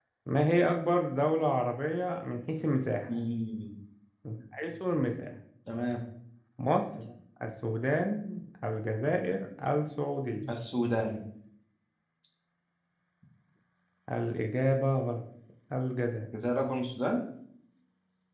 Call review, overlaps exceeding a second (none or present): none